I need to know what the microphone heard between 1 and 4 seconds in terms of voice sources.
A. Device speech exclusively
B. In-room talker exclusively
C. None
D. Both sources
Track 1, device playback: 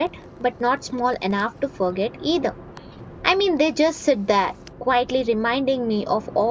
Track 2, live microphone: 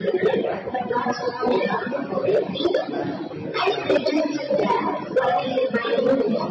D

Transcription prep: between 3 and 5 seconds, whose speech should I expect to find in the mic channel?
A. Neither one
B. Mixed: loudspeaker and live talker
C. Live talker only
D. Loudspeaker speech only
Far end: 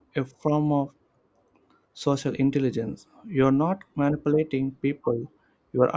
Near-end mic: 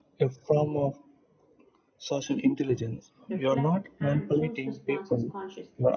B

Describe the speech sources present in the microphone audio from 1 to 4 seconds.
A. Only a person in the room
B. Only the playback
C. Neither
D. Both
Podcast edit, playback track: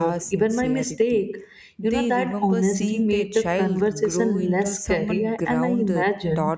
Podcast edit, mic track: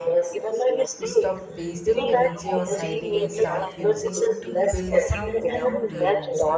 D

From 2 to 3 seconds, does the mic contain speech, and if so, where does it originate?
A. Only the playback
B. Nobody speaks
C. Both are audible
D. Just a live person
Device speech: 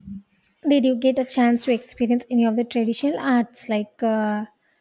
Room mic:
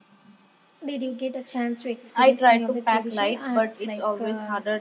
C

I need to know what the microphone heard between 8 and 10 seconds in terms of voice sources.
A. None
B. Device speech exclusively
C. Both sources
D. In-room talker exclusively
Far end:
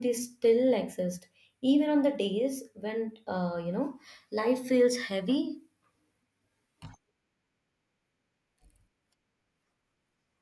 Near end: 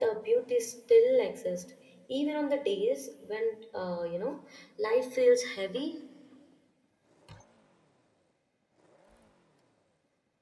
A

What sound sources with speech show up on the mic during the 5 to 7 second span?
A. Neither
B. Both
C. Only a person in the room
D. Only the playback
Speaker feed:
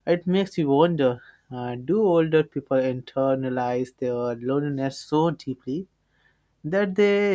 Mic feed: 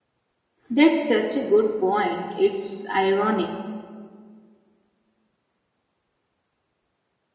A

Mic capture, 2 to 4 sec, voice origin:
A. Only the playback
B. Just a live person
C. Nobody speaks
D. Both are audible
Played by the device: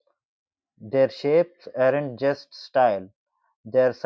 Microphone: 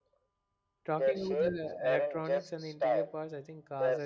D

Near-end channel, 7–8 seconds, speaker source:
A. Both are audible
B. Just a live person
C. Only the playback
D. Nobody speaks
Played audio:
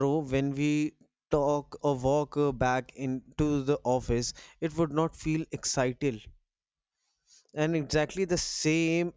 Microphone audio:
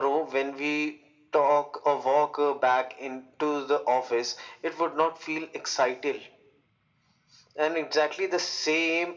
C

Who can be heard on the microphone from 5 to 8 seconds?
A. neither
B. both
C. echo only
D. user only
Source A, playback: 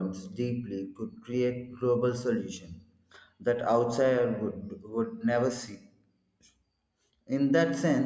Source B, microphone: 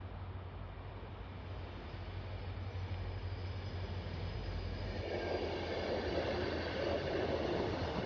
A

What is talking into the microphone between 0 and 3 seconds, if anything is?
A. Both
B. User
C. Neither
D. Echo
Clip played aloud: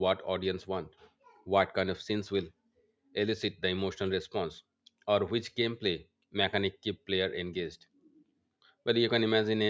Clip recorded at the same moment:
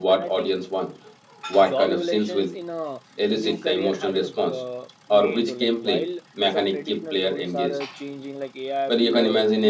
A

